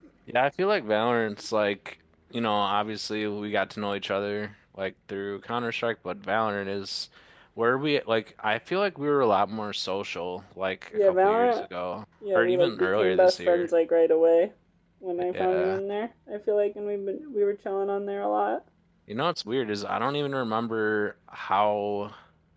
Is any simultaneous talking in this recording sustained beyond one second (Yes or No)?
Yes